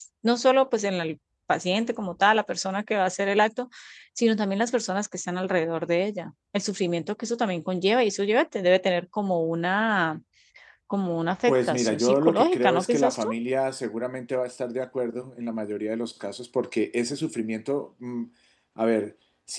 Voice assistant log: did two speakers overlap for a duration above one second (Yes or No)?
Yes